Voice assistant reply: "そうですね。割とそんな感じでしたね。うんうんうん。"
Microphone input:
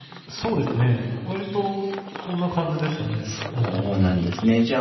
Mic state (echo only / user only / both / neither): both